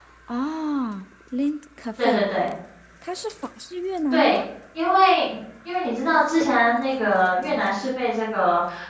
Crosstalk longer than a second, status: none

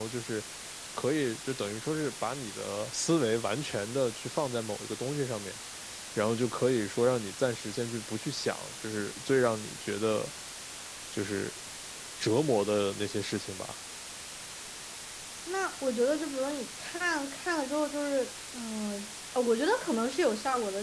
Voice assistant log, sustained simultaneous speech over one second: none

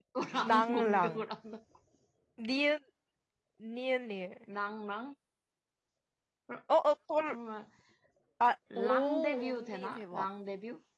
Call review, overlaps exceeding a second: present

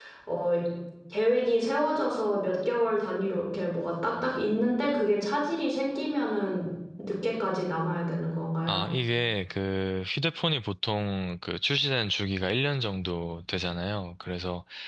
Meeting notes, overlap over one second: none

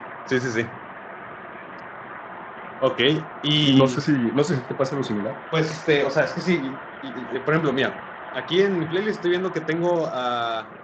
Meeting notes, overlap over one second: none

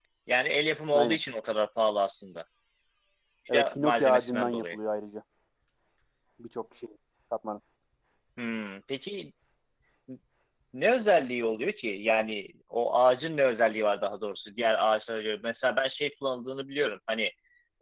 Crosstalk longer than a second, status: present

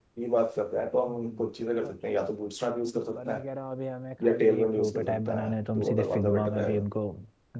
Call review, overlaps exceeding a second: present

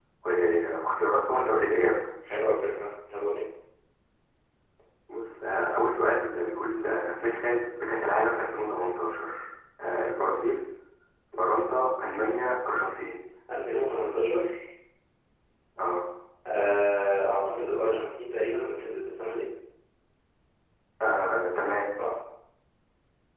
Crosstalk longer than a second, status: none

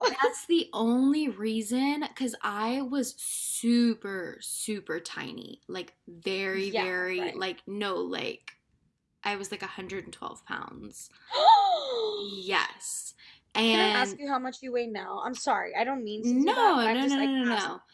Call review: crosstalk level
present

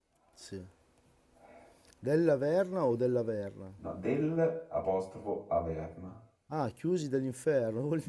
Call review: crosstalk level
none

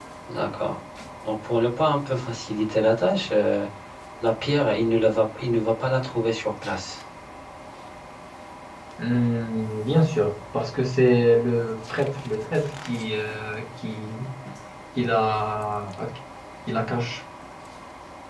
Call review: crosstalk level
none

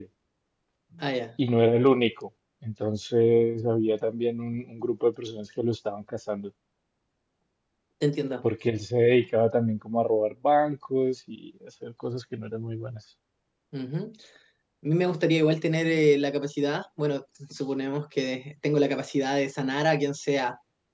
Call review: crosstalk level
none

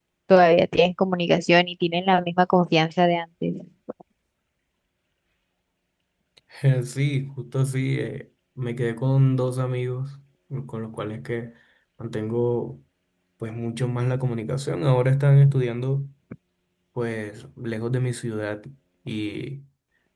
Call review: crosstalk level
none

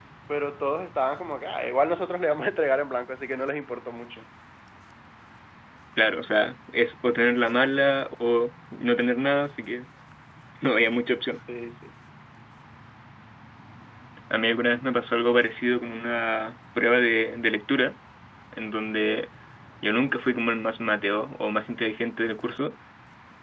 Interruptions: none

